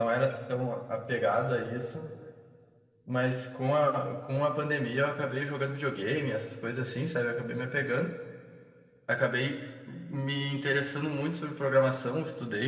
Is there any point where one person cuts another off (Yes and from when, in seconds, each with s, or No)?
No